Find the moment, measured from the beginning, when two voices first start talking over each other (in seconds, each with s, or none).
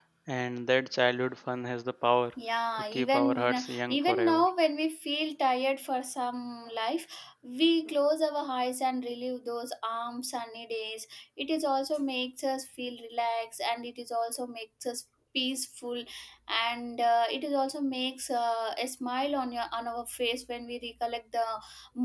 2.8 s